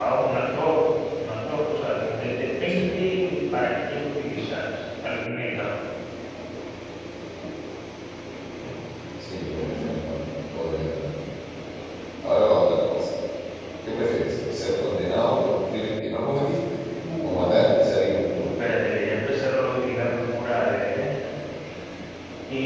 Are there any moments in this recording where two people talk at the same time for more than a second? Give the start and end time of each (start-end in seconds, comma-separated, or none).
17.2-18.4